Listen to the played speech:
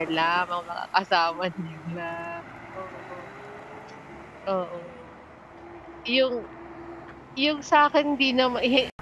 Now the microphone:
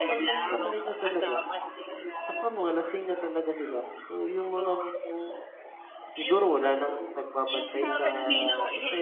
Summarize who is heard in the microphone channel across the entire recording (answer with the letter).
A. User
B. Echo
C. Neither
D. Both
D